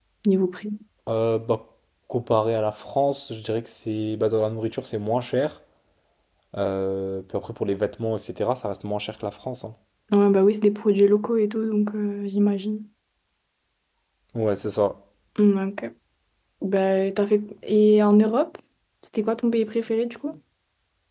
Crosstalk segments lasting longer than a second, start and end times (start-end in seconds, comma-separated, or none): none